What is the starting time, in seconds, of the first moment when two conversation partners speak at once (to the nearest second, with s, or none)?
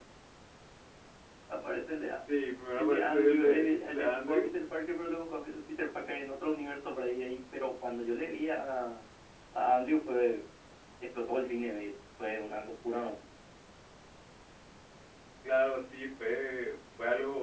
3 s